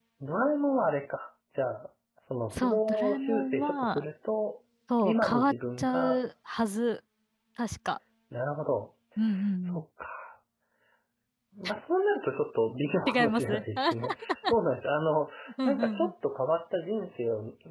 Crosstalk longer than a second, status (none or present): present